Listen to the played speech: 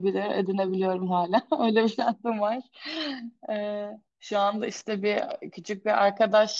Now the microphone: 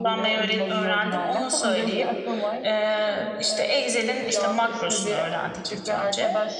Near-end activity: present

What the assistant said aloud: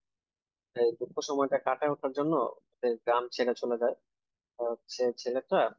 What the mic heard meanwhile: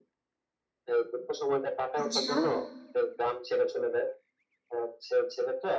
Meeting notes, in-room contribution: present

